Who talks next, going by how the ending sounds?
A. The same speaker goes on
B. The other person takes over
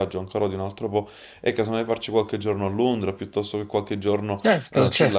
B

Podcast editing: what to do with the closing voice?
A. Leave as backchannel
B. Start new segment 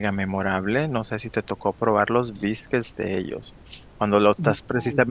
A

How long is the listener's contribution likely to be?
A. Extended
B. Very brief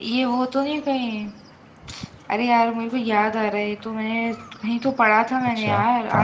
A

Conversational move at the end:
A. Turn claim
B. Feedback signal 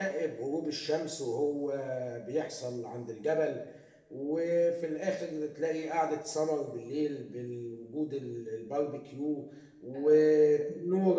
B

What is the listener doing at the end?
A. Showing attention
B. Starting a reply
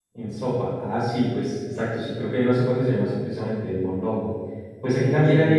A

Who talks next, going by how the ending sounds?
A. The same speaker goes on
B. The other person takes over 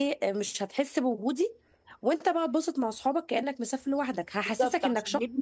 B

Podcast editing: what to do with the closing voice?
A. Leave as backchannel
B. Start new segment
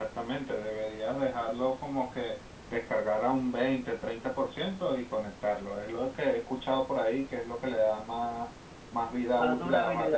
B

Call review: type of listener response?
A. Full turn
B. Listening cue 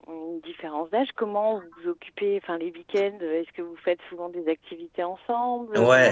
A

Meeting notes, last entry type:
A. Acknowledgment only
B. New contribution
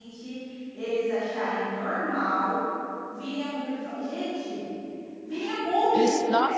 B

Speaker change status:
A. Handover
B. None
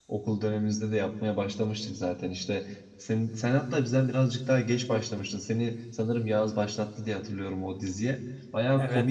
B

